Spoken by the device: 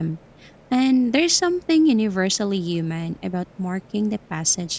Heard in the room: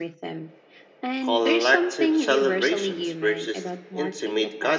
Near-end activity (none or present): present